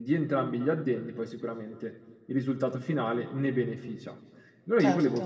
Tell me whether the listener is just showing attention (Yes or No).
Yes